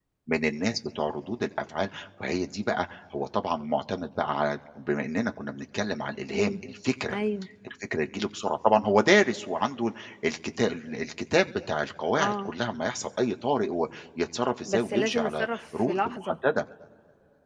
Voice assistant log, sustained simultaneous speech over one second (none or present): present